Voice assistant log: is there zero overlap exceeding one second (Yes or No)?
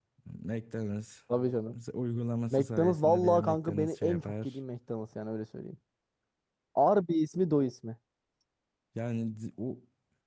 No